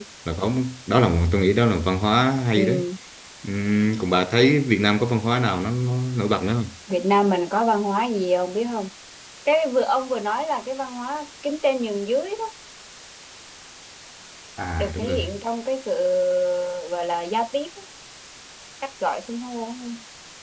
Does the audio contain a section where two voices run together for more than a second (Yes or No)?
No